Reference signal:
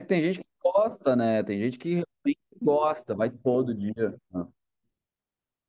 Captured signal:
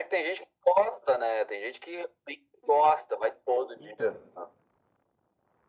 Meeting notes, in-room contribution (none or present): present